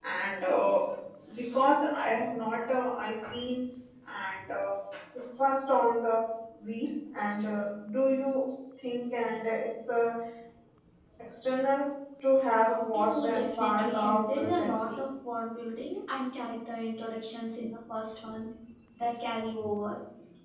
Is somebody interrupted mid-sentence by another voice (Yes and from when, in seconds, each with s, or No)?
Yes, from 12.9 s